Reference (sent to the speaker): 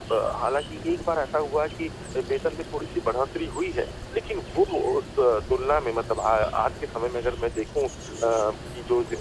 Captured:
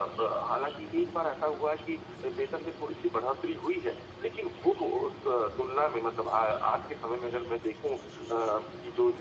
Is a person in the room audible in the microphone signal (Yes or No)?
No